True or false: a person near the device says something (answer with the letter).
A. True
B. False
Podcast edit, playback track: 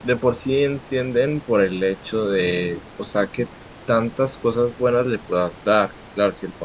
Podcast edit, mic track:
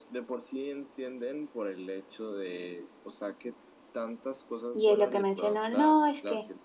A